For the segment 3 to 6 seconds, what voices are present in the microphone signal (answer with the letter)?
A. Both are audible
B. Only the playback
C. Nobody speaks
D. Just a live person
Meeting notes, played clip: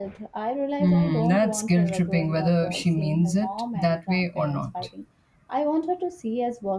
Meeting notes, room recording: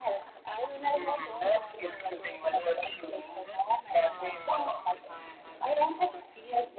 A